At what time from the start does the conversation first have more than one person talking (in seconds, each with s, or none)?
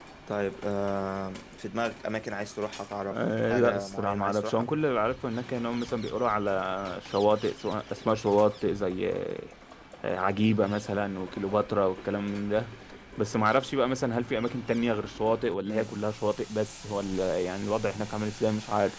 3.1 s